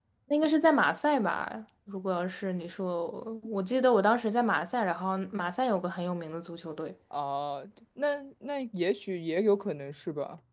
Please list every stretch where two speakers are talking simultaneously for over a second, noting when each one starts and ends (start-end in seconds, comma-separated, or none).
none